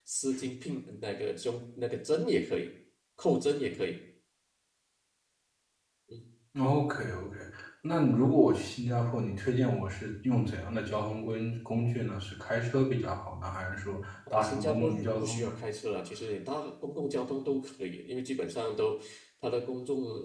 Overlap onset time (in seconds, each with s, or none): 14.3 s